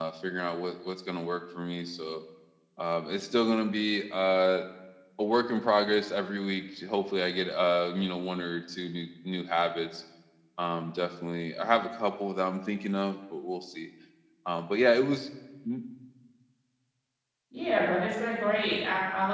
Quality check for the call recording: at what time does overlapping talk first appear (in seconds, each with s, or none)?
none